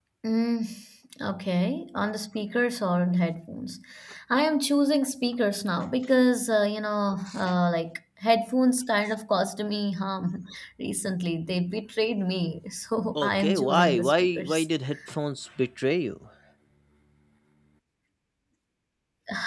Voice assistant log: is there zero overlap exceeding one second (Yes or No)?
No